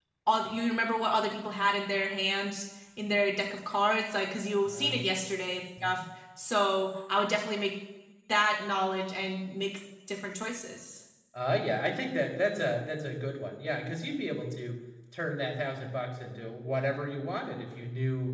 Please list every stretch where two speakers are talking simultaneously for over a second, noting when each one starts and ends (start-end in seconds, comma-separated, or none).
none